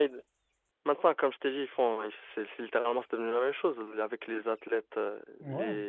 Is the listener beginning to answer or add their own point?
No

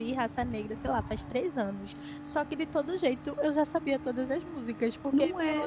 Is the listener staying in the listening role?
Yes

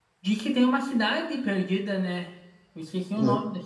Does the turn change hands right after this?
Yes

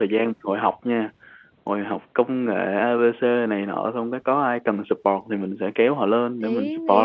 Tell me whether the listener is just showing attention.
No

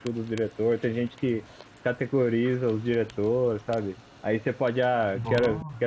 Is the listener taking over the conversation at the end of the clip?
No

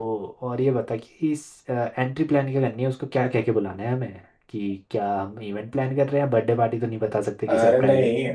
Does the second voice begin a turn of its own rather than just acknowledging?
Yes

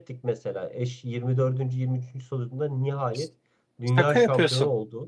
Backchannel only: Yes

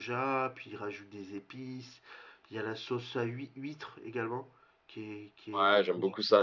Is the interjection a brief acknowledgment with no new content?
No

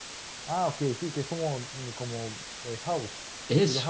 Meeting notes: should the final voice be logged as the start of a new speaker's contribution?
Yes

